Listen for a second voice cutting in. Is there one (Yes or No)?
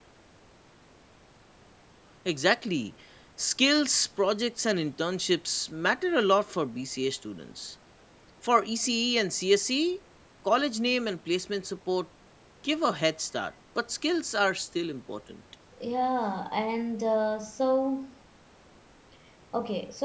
No